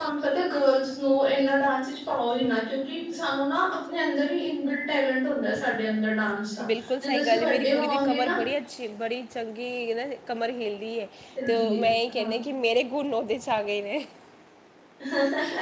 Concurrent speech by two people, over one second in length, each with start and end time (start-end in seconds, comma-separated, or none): 7.0-8.3